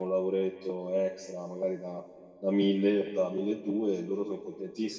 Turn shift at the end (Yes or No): No